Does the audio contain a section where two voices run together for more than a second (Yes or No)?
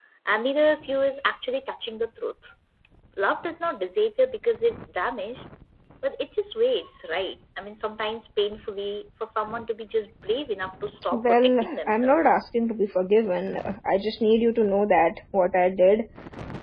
Yes